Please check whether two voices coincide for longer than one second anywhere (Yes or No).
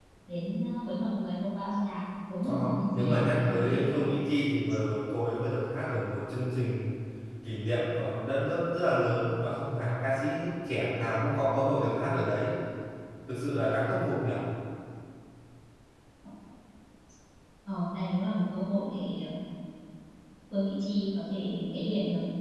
Yes